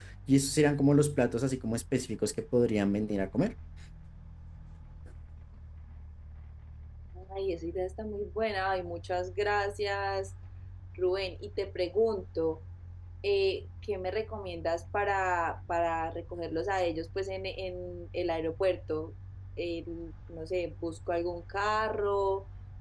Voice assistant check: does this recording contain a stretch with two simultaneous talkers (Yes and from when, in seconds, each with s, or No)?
No